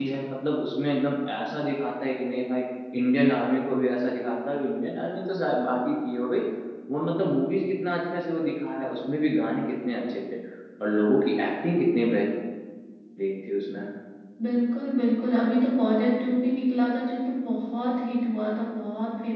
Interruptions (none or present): none